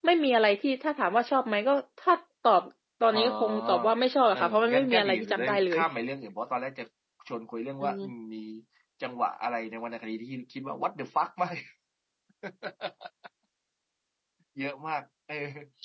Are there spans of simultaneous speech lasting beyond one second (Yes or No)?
Yes